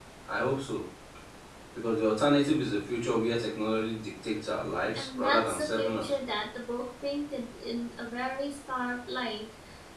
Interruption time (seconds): 4.9 s

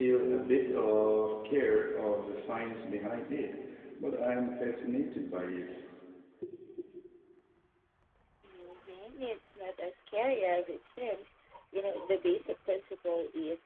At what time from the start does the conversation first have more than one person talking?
none

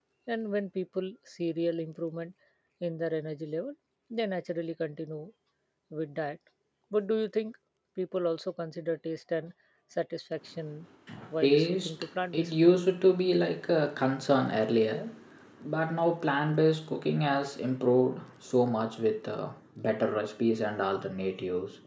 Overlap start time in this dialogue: 11.4 s

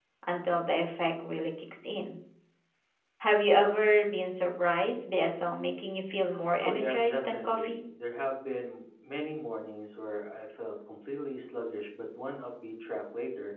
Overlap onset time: 6.6 s

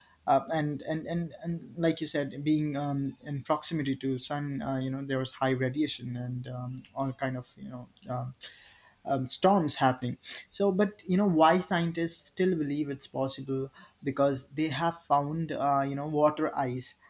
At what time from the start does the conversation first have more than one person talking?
none

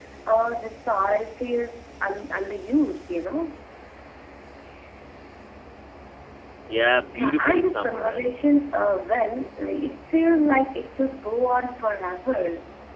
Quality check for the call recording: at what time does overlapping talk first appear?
7.0 s

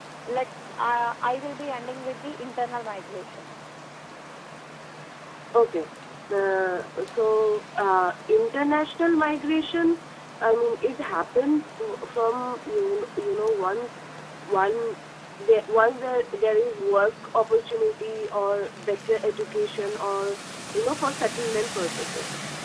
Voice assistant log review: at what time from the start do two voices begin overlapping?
none

